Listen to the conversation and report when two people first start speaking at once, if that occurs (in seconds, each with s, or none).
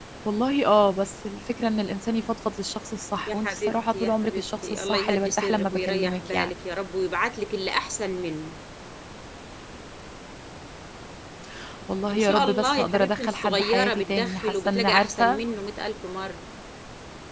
3.3 s